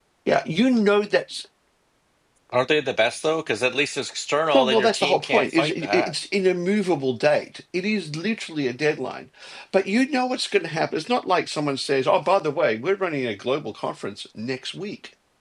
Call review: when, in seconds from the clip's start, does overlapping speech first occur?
4.5 s

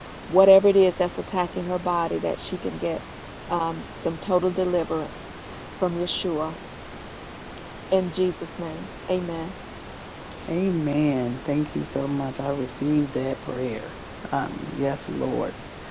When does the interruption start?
none

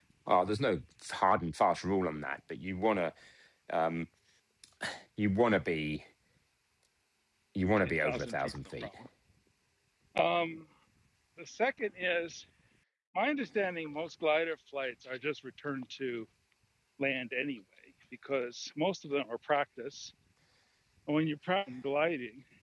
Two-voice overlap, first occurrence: 7.6 s

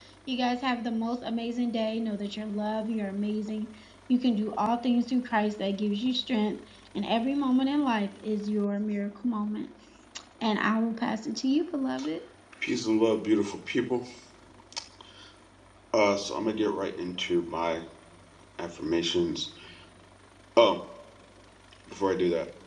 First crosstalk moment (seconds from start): none

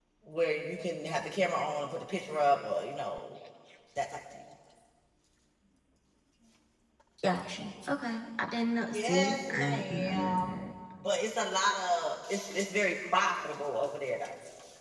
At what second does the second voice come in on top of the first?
8.9 s

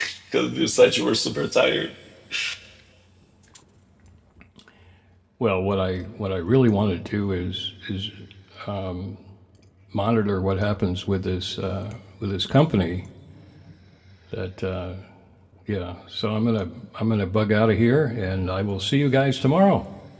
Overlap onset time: none

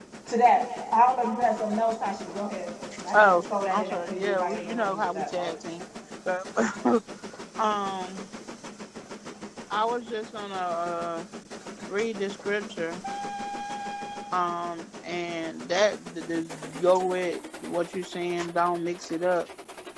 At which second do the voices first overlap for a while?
3.1 s

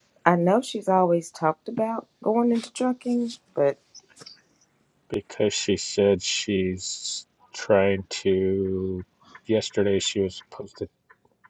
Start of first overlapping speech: none

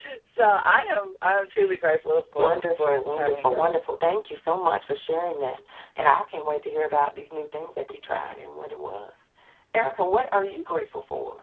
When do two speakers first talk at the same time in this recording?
2.3 s

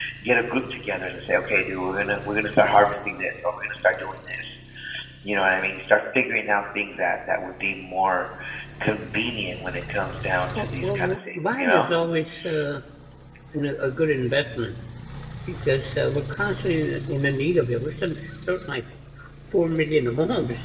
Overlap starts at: 10.6 s

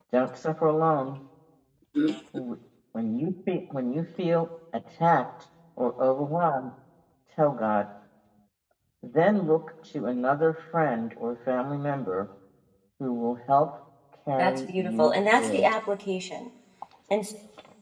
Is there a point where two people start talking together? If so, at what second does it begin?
14.4 s

